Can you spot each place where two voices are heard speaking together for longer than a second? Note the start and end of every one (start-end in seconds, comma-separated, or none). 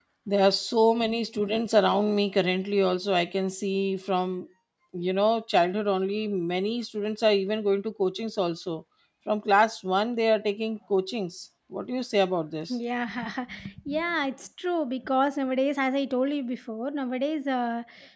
none